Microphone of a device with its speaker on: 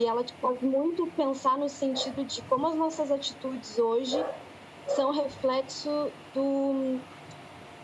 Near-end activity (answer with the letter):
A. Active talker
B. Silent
B